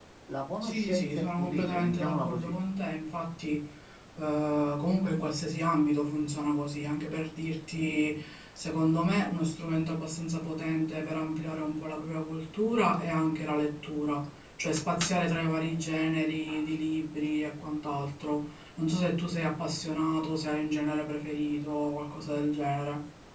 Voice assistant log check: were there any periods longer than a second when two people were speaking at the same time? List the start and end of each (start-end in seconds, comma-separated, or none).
0.6-2.5